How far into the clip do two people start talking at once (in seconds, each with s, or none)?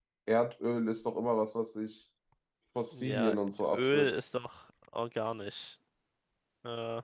2.9 s